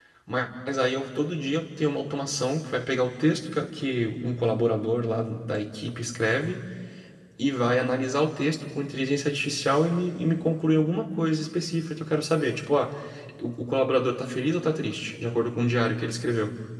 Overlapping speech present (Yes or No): No